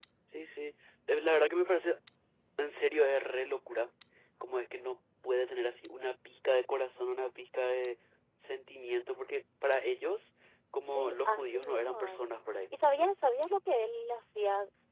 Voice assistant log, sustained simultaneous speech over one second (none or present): present